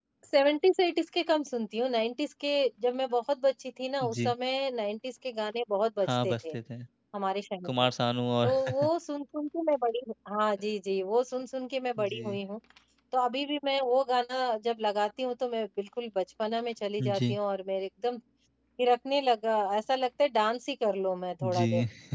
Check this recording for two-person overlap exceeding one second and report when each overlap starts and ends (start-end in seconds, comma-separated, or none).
none